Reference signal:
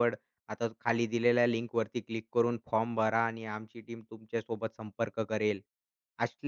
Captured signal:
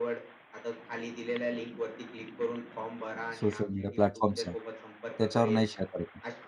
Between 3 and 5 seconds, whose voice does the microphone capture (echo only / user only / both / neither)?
both